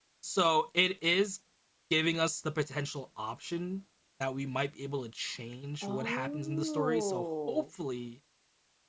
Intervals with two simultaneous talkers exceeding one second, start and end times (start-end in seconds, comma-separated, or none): 5.8-7.6